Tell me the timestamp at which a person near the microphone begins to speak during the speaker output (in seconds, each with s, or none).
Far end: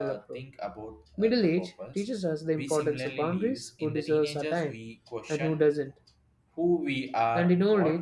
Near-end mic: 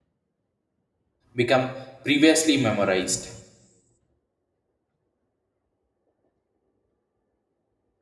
1.4 s